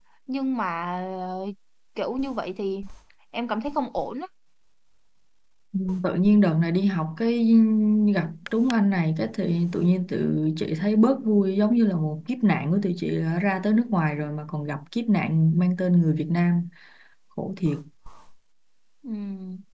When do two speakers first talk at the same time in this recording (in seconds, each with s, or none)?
none